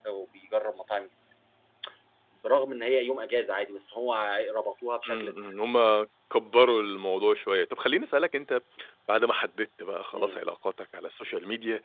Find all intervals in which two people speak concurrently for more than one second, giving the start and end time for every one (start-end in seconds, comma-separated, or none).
none